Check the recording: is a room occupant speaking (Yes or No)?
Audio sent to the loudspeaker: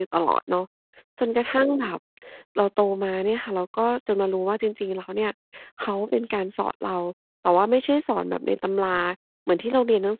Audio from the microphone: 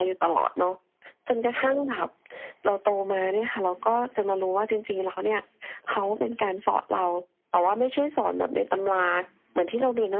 Yes